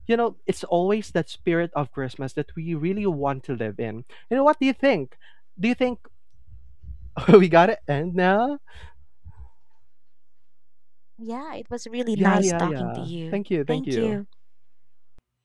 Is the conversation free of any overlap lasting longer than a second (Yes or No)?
No